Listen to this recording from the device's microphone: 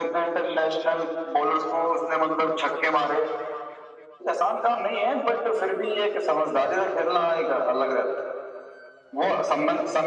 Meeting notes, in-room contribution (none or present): none